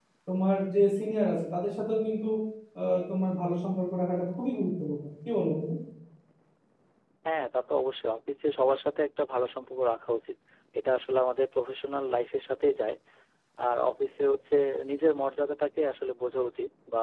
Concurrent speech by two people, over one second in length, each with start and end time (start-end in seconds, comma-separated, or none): none